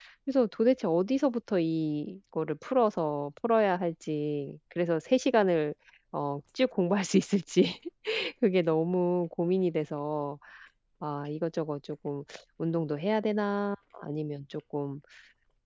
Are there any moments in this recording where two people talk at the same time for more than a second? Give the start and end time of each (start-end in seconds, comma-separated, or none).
none